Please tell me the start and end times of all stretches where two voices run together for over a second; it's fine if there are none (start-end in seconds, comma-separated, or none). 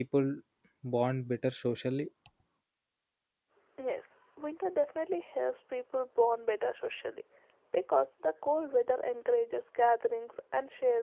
none